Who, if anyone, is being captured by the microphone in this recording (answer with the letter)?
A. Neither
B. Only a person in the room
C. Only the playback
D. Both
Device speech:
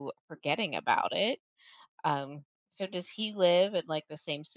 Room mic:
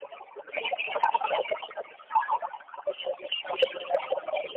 C